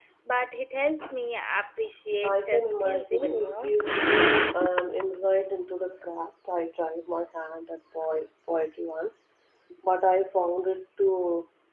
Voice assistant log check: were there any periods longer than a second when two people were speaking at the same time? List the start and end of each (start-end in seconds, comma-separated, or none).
2.2-3.7